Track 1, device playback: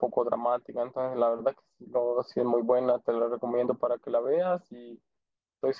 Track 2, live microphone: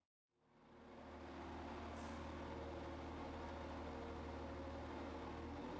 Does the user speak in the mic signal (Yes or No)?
No